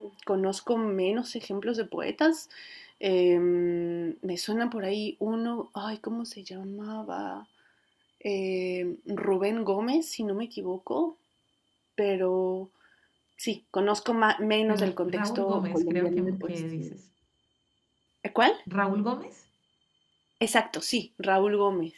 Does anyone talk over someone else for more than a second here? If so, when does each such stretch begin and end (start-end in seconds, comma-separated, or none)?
14.7-16.9